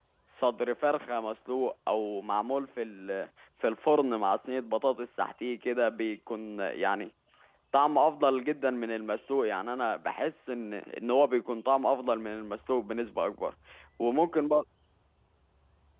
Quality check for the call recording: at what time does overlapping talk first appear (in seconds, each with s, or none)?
none